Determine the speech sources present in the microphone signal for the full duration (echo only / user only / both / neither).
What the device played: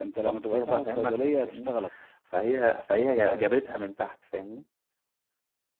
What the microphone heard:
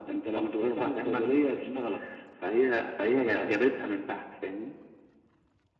echo only